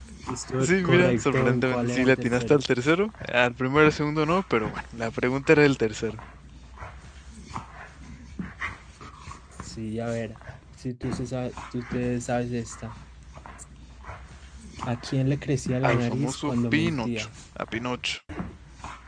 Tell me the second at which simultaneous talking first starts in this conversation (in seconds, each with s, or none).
0.6 s